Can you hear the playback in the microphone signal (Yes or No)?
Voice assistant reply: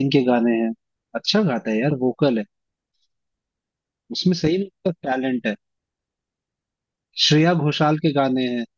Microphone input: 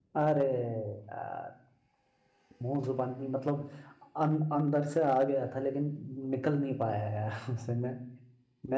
No